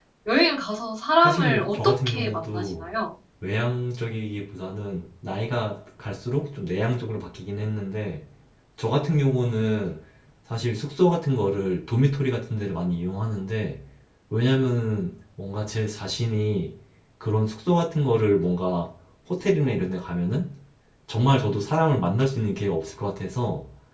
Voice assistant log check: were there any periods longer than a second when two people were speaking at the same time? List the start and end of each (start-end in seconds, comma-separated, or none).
1.2-2.9